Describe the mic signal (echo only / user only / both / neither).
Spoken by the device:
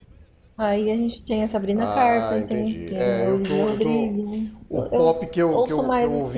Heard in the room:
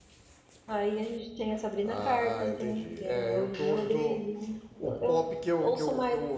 echo only